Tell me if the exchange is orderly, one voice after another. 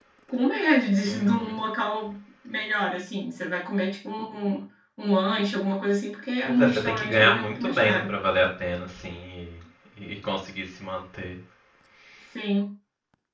No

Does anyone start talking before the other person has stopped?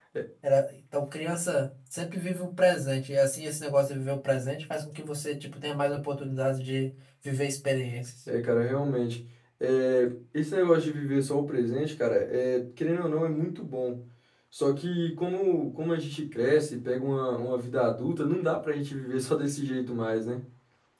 No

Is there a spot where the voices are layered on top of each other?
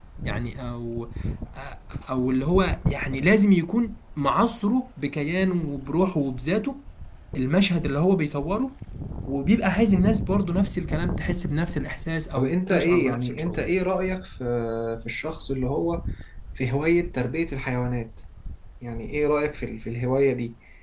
Yes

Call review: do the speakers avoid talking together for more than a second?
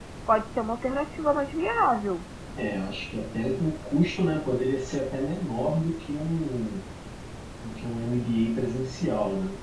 Yes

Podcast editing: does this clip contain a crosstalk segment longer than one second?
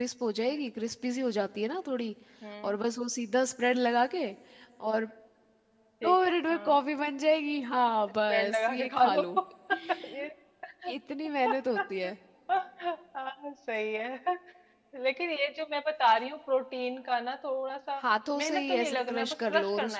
Yes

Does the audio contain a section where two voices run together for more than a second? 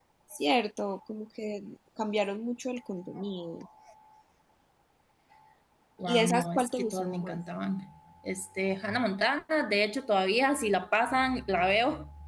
Yes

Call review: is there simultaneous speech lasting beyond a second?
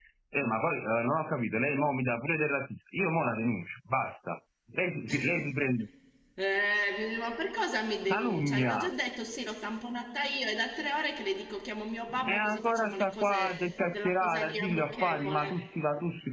Yes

